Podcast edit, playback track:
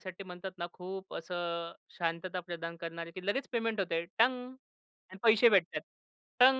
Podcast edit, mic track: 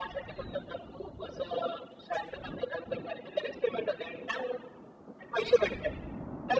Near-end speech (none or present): none